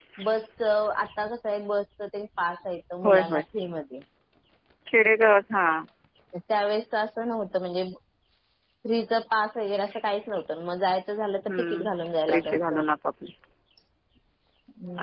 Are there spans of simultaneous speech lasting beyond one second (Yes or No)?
No